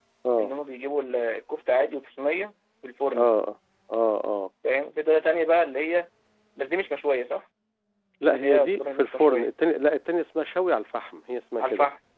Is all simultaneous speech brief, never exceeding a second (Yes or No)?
No